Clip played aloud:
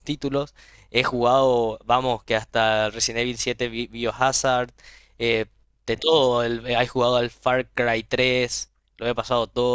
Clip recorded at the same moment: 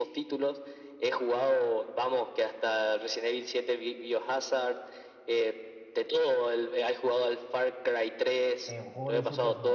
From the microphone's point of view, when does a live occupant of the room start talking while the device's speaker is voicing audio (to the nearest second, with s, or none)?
9 s